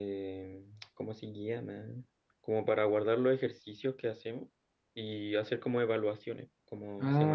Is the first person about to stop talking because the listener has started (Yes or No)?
Yes